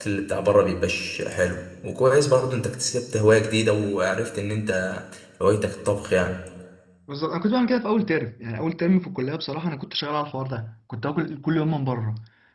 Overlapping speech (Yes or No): No